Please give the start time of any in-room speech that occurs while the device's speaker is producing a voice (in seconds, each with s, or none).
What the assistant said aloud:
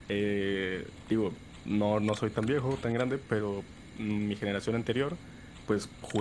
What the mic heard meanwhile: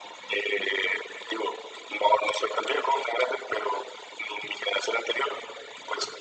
none